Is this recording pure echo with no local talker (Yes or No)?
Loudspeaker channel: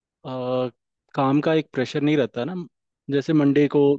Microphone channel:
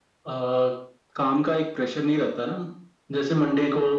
Yes